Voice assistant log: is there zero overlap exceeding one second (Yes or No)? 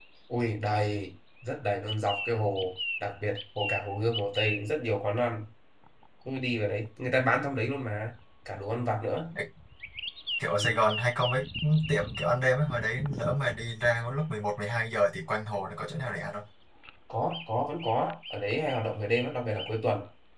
Yes